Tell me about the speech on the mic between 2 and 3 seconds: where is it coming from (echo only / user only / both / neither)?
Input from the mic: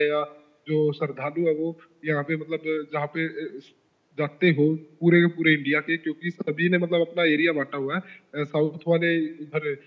echo only